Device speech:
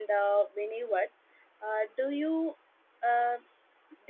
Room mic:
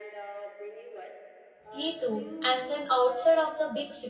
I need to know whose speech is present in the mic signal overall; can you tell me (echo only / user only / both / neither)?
both